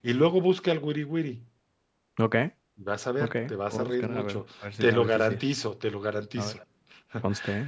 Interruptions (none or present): present